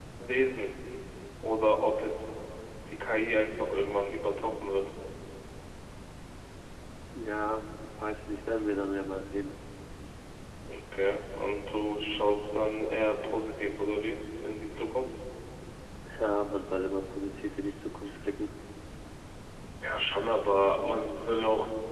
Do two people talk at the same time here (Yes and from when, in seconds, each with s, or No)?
No